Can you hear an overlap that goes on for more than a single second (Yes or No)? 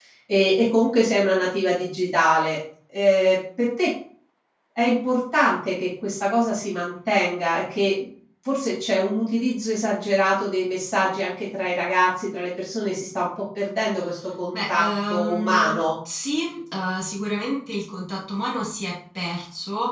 Yes